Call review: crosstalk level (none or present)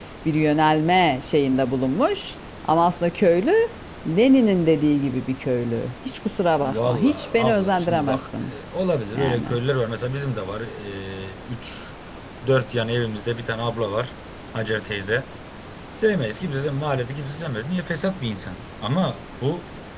present